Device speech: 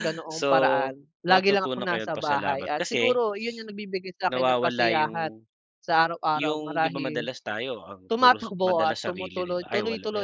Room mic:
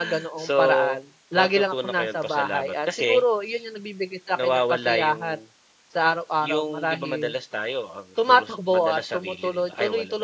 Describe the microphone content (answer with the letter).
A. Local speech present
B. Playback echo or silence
B